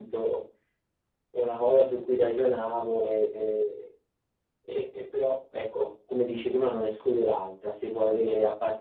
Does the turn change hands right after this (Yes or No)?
No